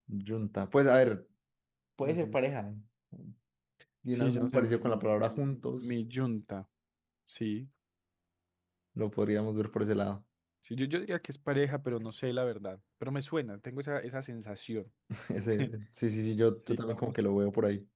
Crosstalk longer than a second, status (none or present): present